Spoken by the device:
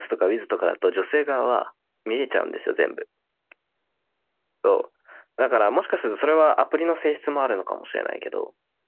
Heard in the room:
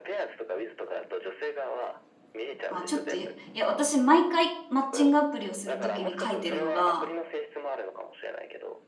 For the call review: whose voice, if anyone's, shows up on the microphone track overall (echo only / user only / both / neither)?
both